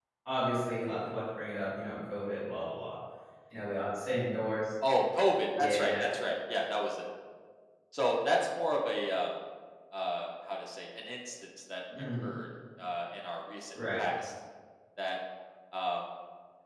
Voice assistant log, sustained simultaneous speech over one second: none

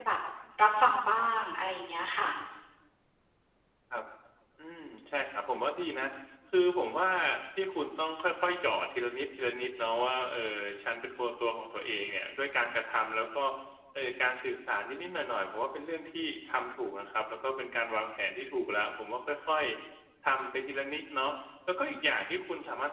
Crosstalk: none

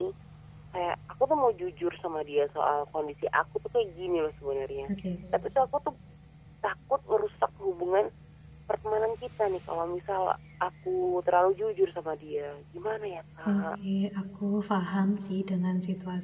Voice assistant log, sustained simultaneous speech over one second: none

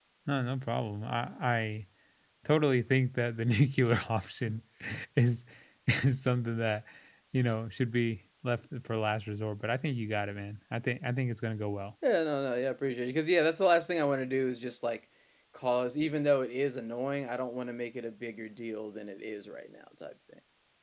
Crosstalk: none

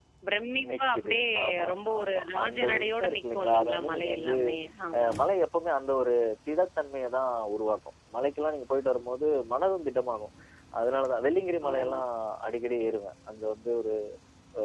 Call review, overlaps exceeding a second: present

